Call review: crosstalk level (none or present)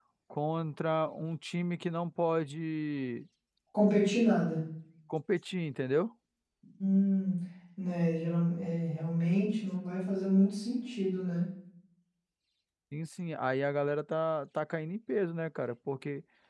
none